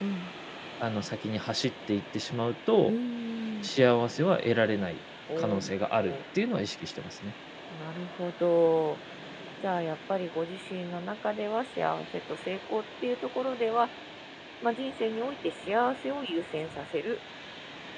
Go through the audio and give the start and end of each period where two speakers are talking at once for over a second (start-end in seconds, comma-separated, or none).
none